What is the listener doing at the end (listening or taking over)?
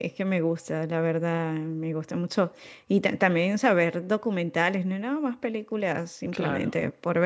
listening